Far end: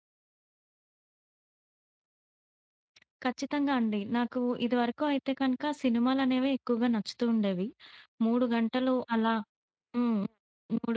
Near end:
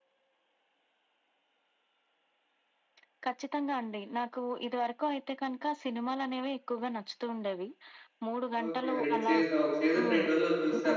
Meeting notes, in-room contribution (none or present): present